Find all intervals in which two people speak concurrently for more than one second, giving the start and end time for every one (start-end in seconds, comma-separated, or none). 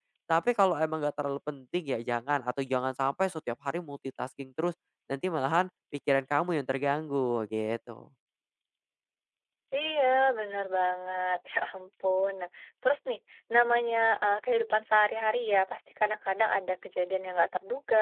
none